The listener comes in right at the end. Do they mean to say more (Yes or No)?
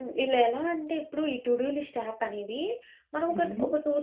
No